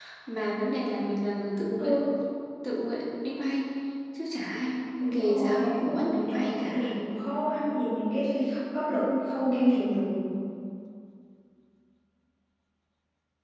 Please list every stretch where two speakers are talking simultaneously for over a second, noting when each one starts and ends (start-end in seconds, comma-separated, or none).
5.1-7.0